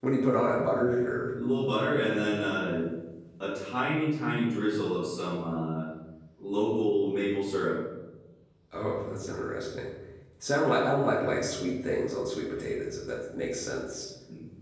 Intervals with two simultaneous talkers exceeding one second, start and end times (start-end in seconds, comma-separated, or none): none